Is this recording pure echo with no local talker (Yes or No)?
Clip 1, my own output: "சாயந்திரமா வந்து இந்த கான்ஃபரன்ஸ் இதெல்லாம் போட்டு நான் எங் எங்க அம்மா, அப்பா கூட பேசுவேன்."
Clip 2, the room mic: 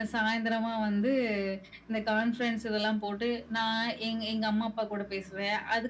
Yes